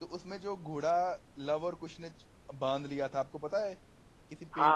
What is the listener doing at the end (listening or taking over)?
taking over